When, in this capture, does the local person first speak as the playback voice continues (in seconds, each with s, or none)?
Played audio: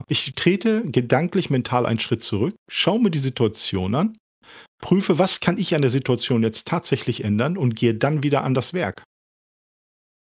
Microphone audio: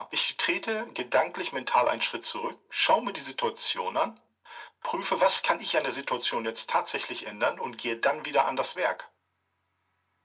none